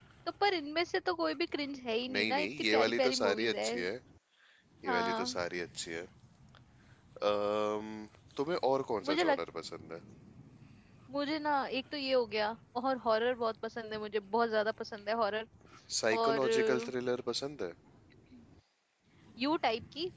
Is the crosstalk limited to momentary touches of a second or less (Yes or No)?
No